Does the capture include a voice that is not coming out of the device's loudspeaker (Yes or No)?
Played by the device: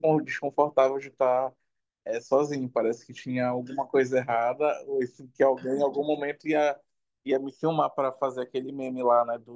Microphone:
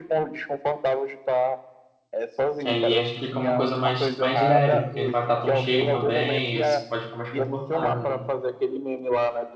Yes